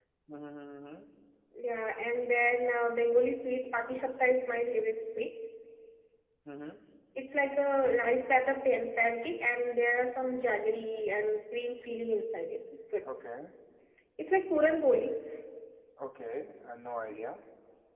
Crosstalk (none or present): none